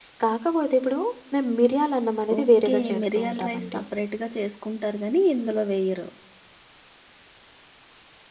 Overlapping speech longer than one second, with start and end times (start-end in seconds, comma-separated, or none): 2.4-3.8